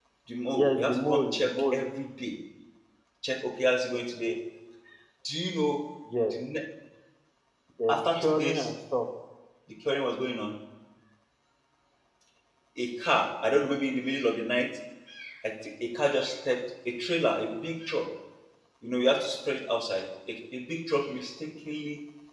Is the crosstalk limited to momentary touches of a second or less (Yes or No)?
No